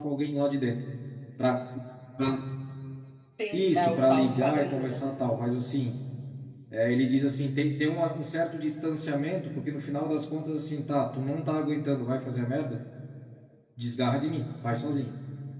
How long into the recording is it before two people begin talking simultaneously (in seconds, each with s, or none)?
3.5 s